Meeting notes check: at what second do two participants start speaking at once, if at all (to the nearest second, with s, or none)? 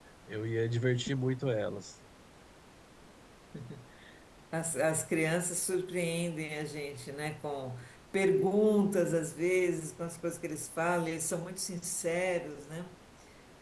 none